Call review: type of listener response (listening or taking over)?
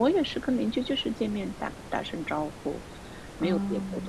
listening